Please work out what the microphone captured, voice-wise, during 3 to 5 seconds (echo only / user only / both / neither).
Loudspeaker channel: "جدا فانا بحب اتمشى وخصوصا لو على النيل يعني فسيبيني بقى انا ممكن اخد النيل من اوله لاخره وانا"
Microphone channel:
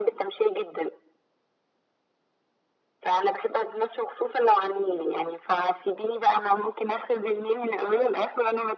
echo only